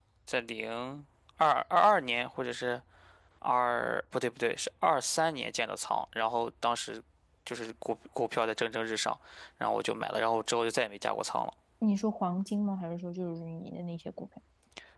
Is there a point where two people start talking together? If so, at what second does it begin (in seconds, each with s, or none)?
none